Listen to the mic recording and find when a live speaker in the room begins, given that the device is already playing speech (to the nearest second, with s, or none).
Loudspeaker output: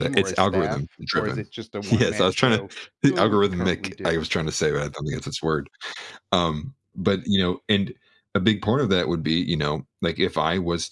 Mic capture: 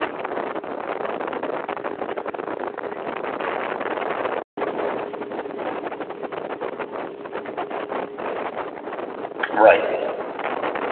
10 s